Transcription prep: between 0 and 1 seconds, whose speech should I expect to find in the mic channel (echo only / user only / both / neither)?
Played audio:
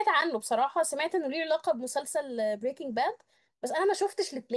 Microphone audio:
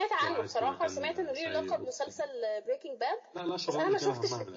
both